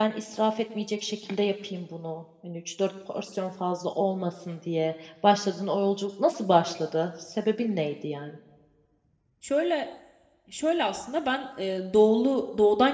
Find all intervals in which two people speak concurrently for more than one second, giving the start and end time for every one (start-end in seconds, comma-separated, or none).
none